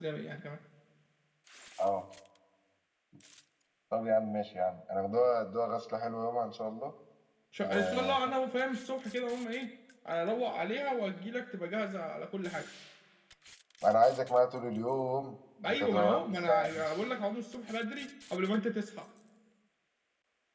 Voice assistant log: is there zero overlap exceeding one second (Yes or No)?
No